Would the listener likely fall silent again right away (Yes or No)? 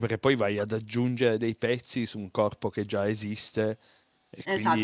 No